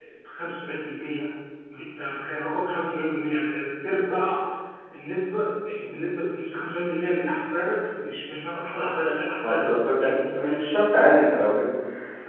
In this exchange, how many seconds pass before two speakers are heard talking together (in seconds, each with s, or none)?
9.4 s